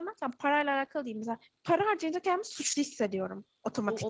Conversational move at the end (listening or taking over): taking over